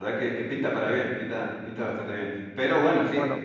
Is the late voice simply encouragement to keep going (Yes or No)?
Yes